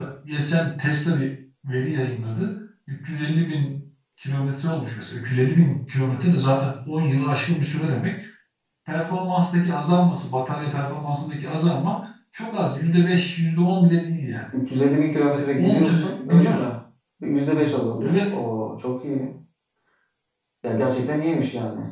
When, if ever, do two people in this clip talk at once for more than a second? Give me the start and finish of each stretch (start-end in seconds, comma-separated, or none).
15.3-16.7